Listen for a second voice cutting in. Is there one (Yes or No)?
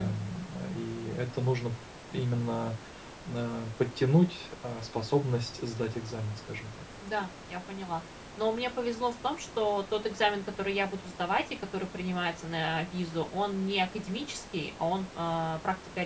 No